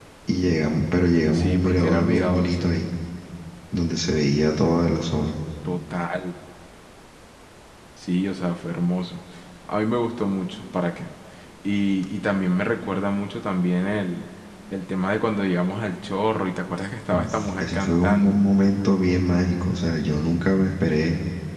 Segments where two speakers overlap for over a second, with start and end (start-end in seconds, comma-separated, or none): 1.3-2.7, 17.1-18.4